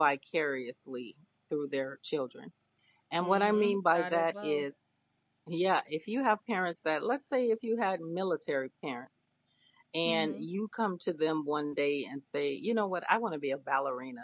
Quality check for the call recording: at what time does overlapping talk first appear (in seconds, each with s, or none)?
3.2 s